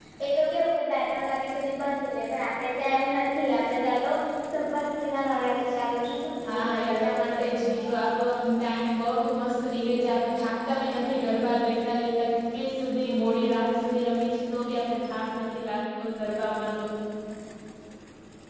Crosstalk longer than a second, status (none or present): present